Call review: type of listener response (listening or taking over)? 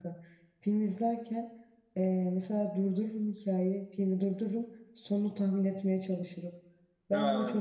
listening